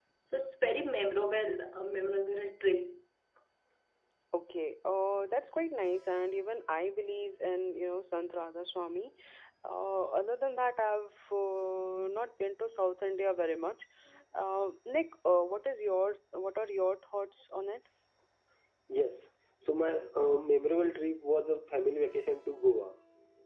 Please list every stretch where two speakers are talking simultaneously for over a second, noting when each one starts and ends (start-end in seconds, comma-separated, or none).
none